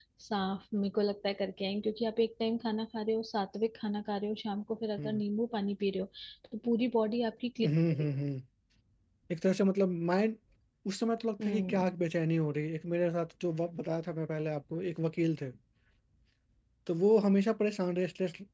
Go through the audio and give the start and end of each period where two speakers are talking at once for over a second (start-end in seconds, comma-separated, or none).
none